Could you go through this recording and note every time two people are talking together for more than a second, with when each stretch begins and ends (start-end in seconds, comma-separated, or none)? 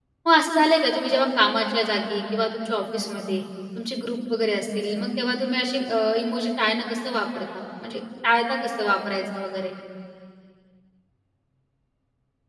none